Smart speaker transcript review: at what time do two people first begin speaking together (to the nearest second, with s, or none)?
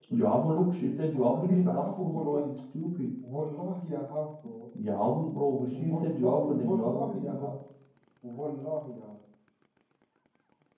1 s